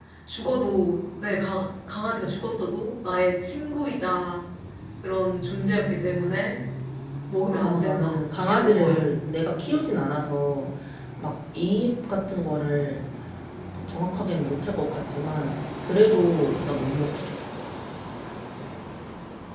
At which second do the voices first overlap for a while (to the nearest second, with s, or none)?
8 s